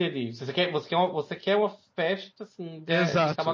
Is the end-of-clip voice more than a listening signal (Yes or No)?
Yes